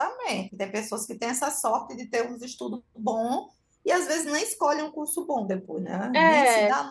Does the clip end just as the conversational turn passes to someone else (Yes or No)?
No